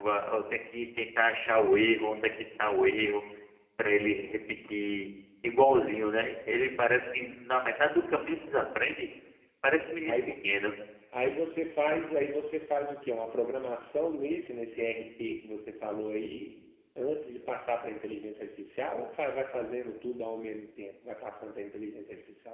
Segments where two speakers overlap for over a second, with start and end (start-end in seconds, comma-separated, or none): none